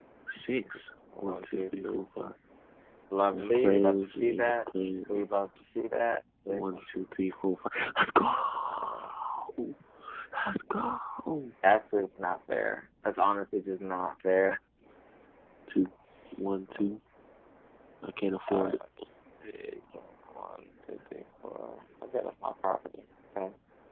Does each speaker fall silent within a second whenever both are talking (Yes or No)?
No